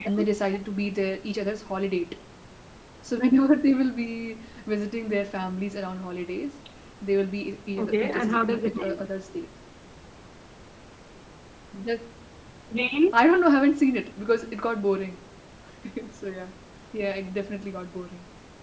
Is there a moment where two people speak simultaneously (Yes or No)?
Yes